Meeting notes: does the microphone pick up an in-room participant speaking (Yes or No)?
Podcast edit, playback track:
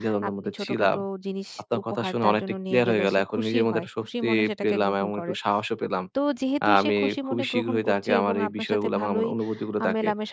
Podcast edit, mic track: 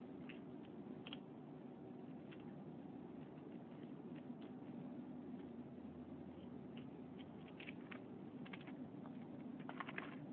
No